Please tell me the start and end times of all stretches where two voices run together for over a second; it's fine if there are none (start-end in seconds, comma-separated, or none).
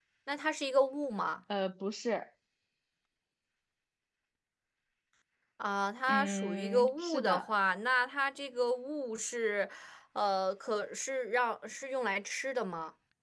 6.1-7.4